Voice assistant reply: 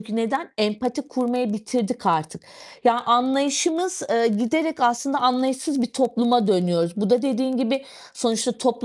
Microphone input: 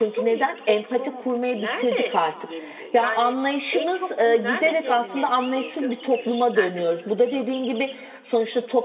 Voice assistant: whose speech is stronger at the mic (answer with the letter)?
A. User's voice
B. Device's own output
B